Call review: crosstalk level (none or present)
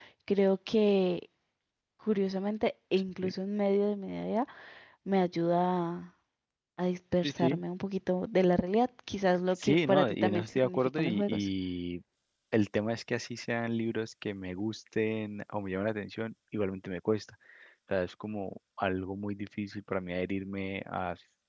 present